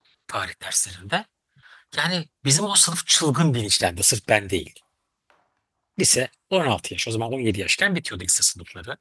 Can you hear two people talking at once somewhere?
No

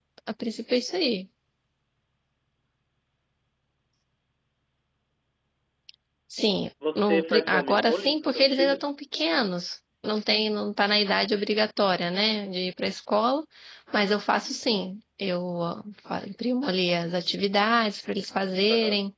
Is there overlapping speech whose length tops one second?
Yes, from 7.0 s

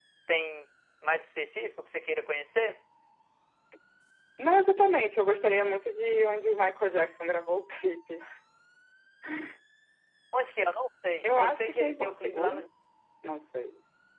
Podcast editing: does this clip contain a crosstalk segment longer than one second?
Yes, from 11.2 s

